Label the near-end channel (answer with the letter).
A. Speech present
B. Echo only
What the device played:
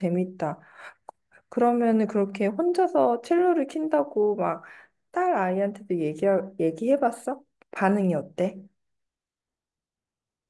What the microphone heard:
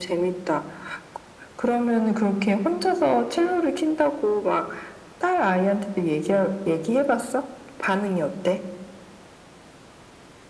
B